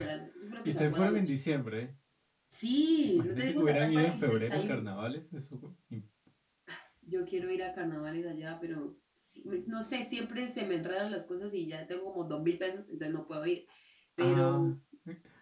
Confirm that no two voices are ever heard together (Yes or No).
No